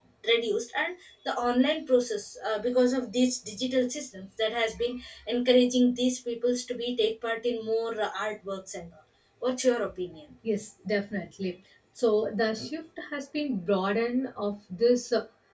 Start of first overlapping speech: none

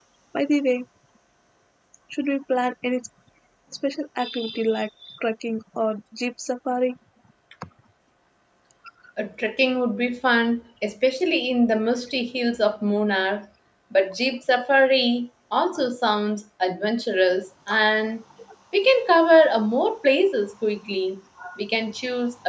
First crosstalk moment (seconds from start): none

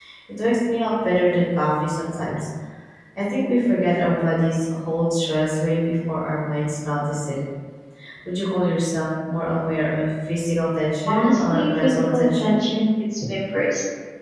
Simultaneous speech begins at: 11.1 s

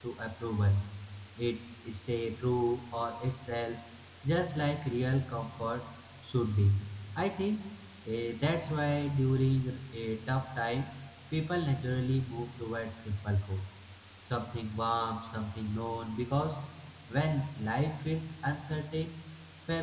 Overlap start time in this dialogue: none

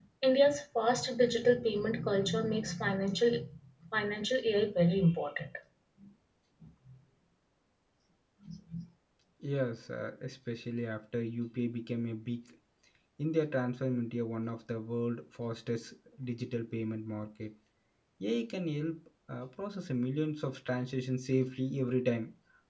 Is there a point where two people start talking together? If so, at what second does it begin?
none

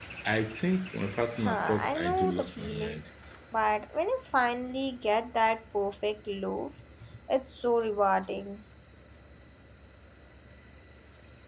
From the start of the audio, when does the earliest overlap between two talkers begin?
1.4 s

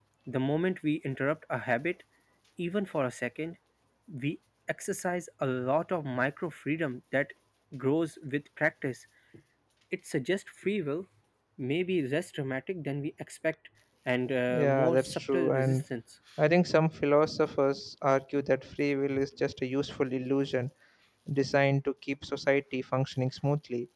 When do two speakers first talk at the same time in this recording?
14.5 s

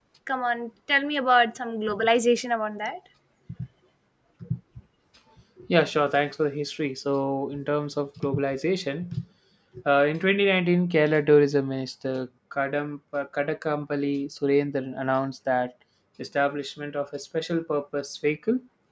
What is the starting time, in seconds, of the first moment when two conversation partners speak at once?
none

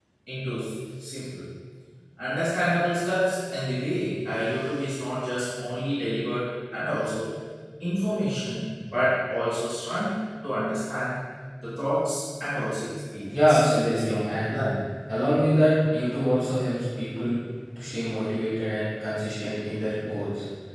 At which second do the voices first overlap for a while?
13.3 s

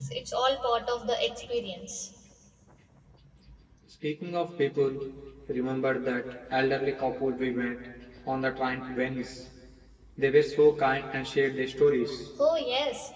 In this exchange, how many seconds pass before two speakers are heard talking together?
none

